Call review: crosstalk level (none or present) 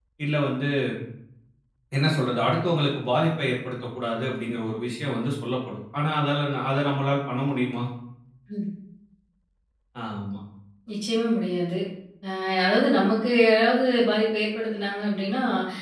none